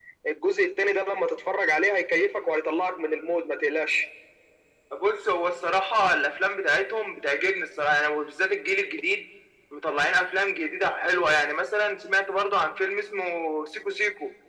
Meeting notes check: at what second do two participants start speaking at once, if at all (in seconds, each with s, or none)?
none